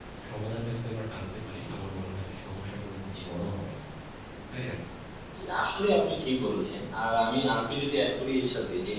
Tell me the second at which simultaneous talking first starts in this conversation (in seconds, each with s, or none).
none